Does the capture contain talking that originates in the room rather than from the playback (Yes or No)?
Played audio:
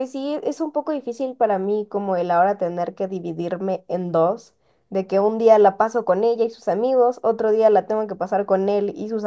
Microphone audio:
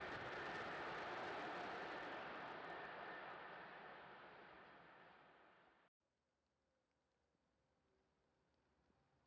No